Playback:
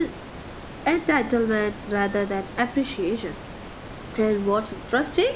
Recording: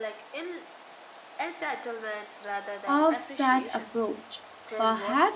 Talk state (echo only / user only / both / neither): both